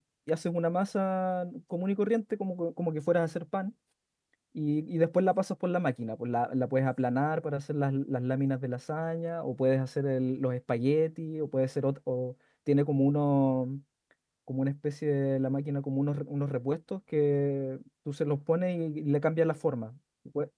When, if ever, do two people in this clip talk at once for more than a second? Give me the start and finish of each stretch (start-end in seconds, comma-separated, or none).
none